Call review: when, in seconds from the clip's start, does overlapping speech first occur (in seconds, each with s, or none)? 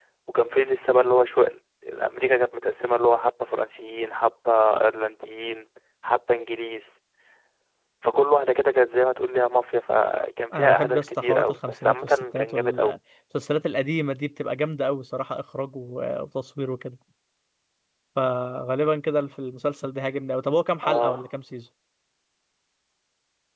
10.5 s